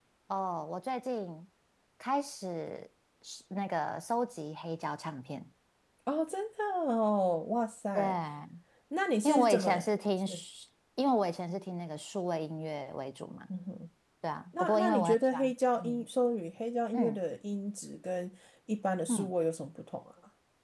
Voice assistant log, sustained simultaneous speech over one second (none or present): present